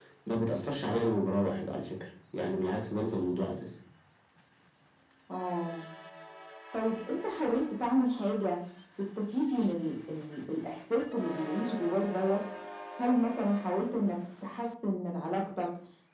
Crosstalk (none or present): none